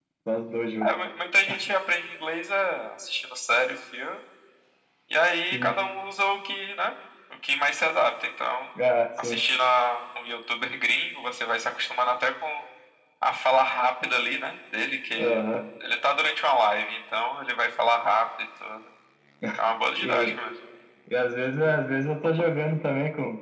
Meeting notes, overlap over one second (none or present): none